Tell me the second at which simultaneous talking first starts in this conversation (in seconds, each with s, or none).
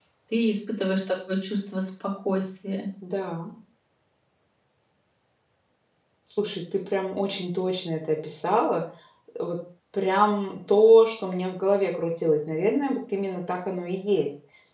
none